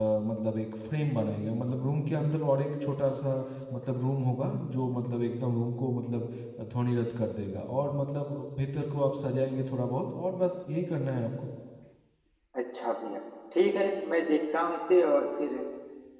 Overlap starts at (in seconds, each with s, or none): none